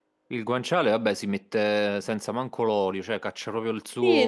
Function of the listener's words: taking over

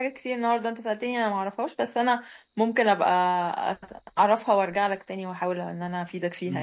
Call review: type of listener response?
taking over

